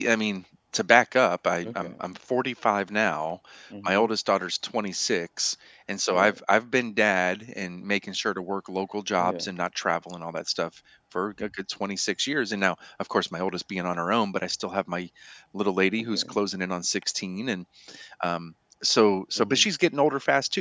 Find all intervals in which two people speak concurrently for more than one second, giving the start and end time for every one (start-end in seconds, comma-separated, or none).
none